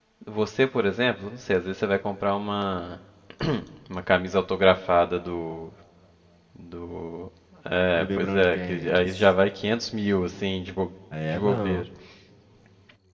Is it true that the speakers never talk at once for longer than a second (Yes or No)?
No